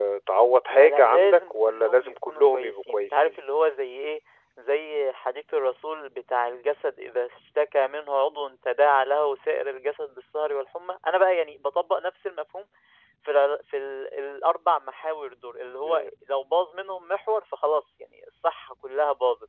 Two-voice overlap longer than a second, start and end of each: 0.7-3.3

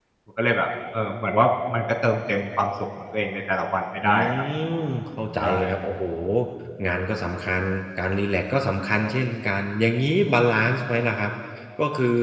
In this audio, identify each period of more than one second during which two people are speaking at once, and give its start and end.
none

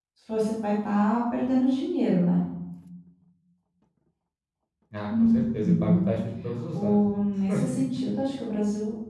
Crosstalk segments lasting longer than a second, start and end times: none

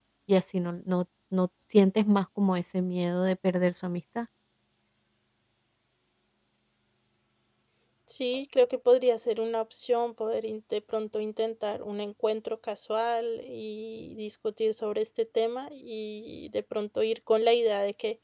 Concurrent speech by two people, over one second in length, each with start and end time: none

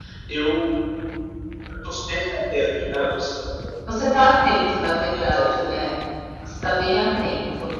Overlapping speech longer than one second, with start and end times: none

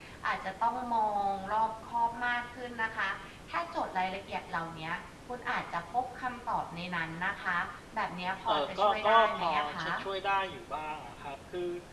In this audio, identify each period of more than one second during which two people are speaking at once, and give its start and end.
8.5-9.9

